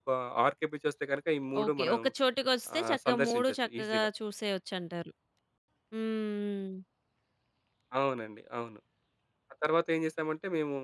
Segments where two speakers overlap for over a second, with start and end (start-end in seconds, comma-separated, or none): 2.8-4.1